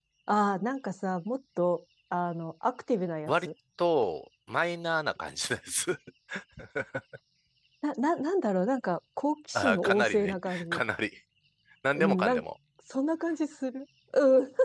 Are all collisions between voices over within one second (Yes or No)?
No